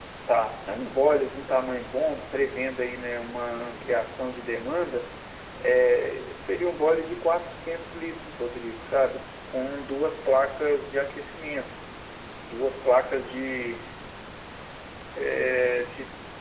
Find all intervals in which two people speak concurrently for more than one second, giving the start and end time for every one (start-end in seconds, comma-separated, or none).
none